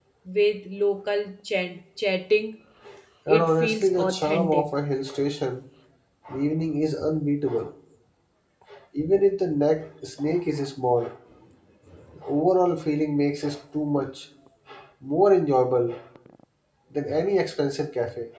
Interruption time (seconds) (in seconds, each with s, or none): 3.3 s